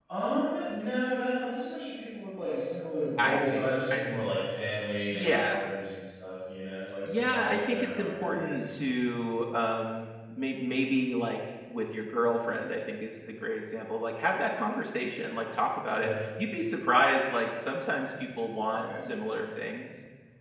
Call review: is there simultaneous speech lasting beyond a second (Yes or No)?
Yes